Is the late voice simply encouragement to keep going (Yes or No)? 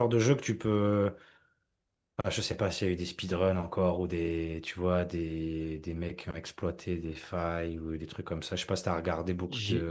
No